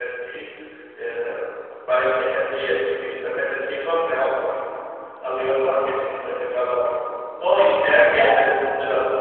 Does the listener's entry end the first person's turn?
No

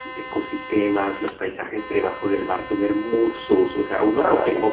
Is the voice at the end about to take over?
No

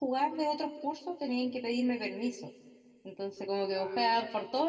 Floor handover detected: No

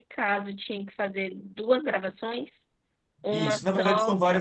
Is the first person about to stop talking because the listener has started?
Yes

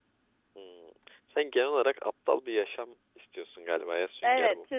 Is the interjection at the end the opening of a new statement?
Yes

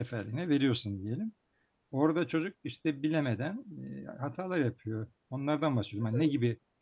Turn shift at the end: No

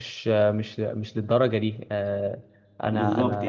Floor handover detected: Yes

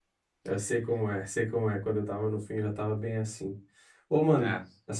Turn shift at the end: No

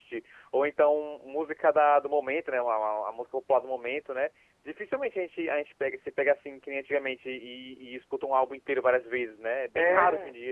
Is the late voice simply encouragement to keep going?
No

